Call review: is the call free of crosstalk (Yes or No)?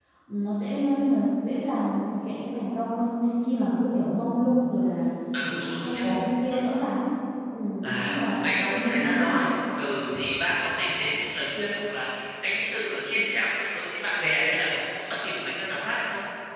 No